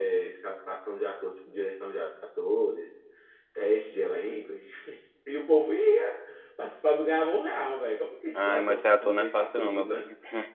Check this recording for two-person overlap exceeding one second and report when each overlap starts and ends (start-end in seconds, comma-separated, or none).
8.3-10.0